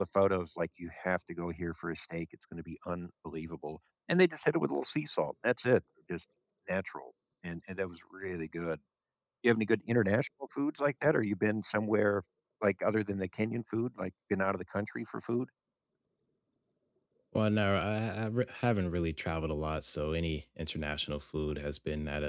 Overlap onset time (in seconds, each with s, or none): none